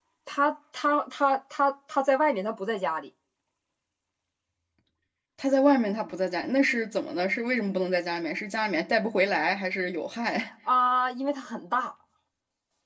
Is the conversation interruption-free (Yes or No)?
Yes